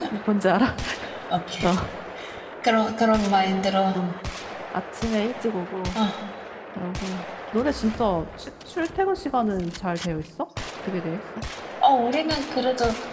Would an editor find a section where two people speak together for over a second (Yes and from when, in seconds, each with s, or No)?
No